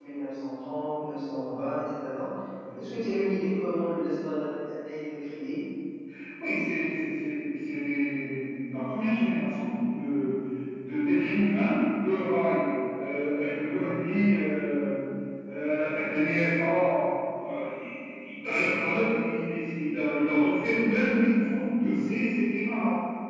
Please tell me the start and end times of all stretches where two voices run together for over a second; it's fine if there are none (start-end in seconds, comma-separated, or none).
none